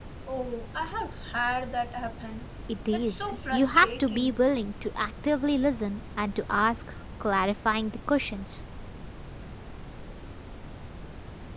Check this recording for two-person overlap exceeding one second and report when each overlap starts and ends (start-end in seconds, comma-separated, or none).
2.9-4.4